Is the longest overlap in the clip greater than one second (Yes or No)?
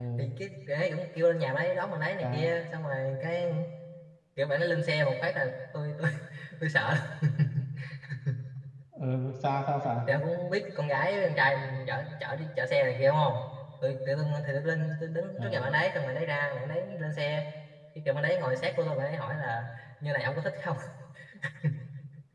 No